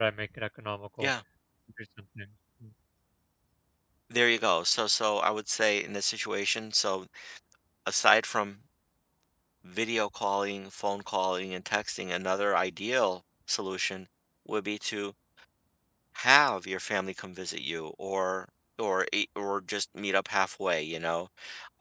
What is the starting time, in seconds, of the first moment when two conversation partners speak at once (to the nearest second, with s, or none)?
none